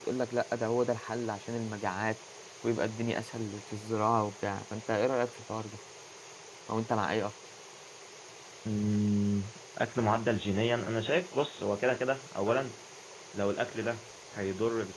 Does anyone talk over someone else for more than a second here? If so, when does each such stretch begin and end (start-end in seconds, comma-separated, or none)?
none